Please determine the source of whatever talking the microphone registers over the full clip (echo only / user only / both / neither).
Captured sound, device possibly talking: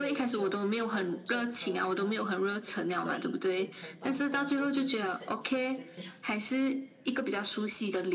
both